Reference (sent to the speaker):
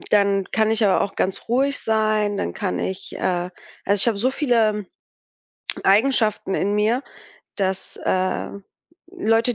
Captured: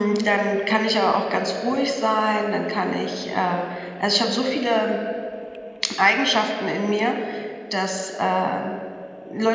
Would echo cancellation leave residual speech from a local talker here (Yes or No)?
No